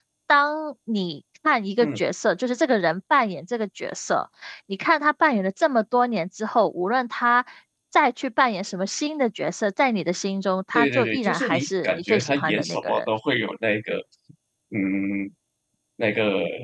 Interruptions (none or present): present